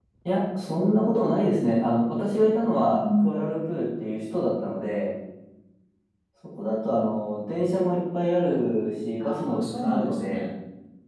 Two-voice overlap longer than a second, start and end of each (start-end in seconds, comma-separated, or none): 9.2-10.5